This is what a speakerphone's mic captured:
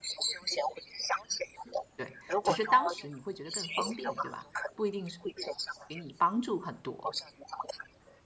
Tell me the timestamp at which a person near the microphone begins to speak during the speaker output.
1.9 s

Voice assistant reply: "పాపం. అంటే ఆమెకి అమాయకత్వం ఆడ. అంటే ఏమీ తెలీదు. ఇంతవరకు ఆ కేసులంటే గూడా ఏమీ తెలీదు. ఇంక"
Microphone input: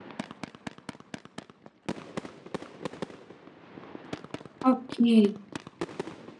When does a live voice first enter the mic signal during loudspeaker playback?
4.7 s

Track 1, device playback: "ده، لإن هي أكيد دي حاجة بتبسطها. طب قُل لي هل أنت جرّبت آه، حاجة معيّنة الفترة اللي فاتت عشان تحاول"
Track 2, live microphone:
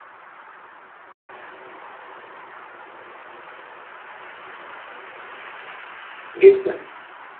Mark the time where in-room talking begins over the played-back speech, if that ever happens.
6.4 s

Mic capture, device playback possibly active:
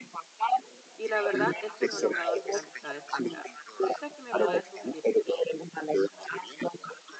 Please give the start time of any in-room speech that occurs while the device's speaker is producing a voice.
1.0 s

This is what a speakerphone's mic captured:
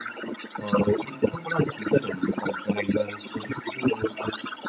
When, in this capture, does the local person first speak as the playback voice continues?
none

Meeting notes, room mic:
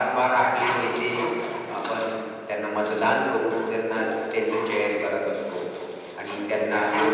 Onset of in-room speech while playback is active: none

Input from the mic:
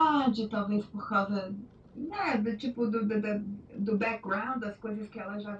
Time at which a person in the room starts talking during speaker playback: none

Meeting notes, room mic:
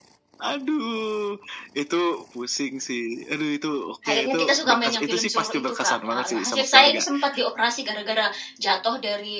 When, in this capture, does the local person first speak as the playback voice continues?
4.0 s

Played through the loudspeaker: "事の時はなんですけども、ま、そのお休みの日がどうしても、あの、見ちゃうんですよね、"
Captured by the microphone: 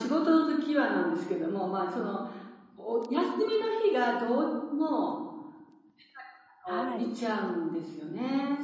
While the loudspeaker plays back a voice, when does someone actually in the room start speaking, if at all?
6.6 s

